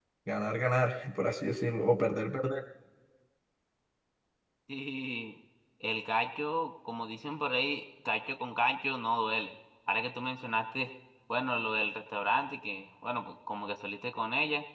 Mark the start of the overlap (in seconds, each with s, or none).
none